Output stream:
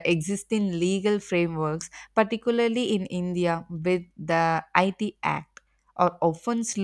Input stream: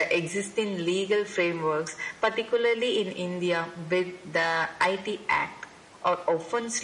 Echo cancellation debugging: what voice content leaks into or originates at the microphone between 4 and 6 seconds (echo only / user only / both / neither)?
echo only